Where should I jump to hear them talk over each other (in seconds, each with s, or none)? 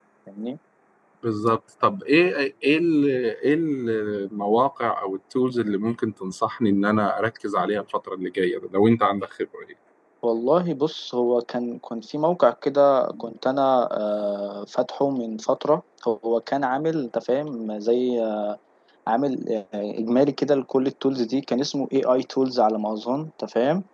none